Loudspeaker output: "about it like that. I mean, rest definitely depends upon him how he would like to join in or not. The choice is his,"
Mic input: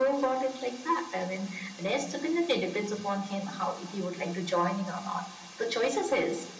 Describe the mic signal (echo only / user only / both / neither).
echo only